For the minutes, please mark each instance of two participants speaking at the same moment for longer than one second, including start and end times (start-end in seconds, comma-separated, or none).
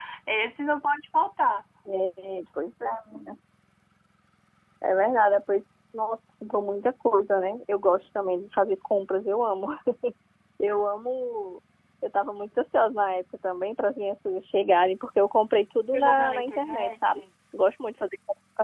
15.9-17.2